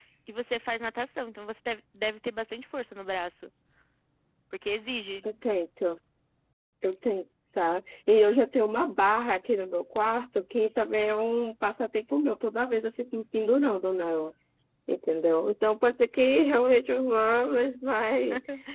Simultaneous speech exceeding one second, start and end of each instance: none

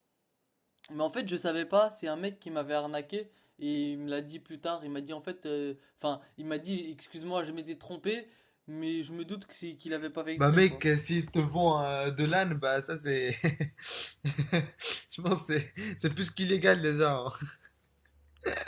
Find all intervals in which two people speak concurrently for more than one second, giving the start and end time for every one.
none

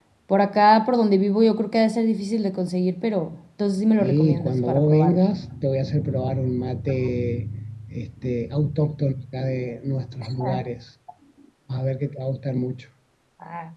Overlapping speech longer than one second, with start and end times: 4.0-5.2

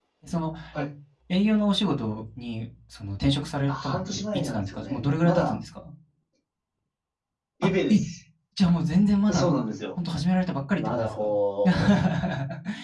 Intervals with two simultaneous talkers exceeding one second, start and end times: 3.7-5.6

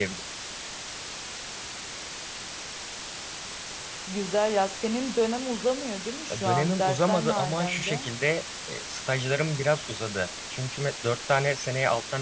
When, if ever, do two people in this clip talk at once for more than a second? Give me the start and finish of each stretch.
6.3-8.1

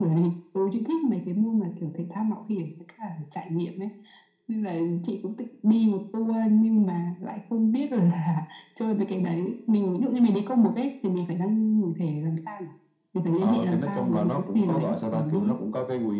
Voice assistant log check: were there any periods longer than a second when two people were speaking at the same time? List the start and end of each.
13.4-15.6

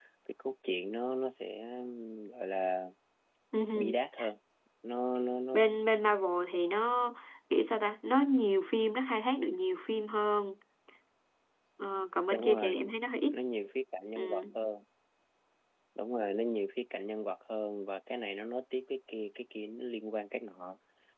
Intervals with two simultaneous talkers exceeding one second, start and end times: none

